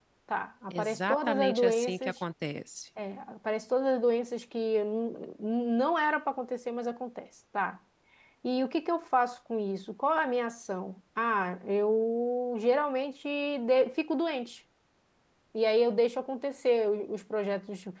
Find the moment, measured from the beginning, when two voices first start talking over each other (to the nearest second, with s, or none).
1 s